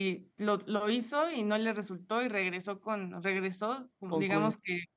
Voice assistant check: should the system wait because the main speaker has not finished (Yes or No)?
Yes